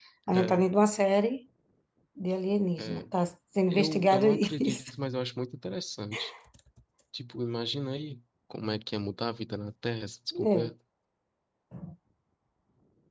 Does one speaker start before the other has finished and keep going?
Yes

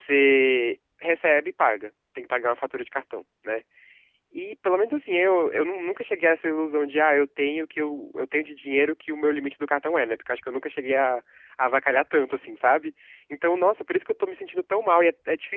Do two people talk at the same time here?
No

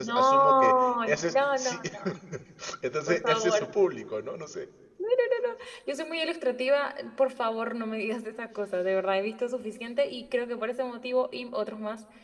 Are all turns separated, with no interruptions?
No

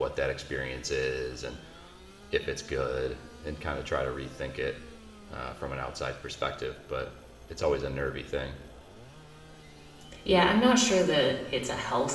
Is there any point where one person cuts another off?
No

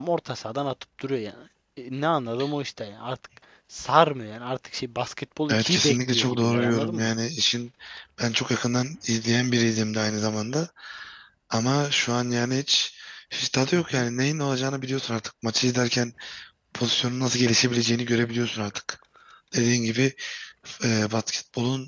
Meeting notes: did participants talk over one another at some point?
Yes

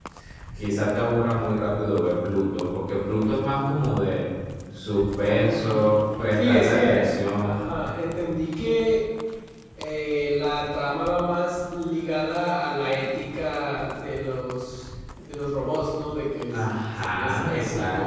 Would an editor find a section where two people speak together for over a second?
Yes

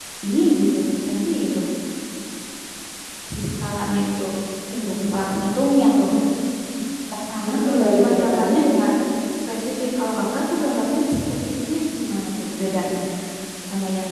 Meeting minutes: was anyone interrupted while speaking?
Yes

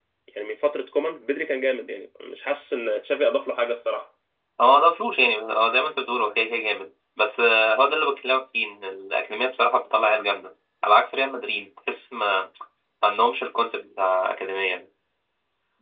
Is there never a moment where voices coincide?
Yes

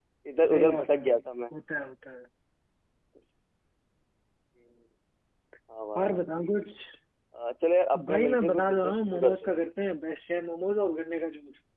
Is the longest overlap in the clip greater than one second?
Yes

